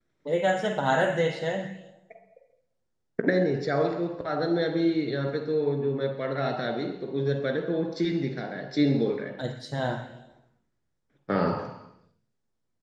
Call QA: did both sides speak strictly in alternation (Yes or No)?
Yes